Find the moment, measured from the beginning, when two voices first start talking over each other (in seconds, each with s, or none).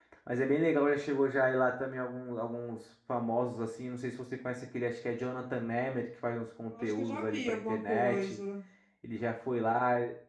6.7 s